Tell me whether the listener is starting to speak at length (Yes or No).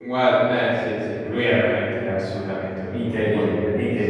Yes